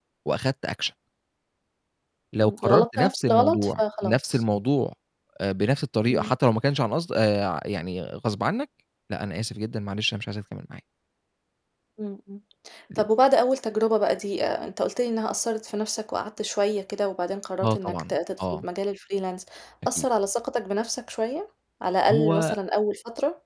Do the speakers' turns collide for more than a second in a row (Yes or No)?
Yes